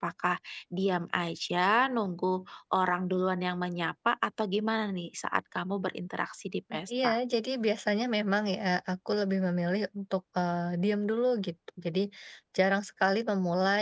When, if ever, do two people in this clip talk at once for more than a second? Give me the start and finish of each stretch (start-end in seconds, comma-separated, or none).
none